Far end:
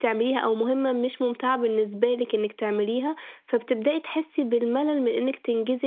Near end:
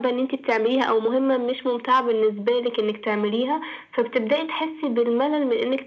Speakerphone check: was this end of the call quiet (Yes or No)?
Yes